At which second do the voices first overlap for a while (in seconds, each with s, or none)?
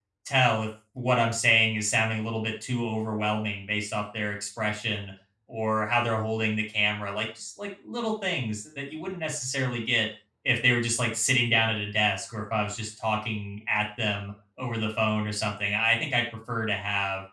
none